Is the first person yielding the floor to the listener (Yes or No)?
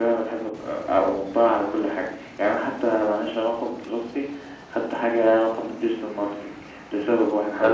No